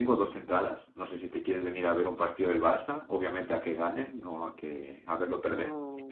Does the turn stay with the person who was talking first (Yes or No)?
No